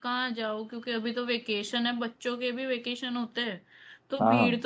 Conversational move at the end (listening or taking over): listening